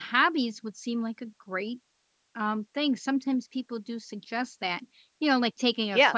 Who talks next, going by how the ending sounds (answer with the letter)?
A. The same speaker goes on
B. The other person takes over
A